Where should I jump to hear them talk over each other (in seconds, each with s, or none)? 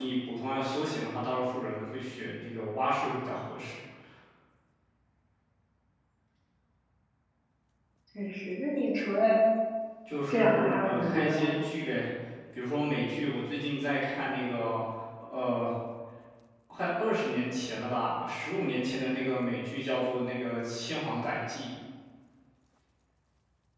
10.3 s